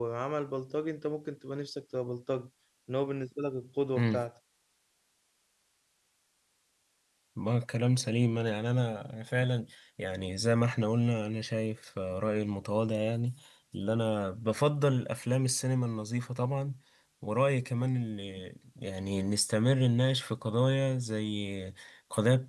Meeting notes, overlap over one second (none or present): none